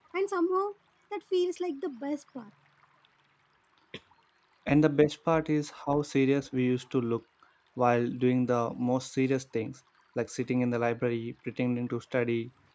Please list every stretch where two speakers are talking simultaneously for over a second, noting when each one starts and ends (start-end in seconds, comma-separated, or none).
none